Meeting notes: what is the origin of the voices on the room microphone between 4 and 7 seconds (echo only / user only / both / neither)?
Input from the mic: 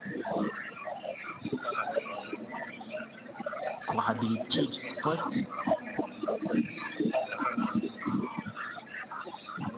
both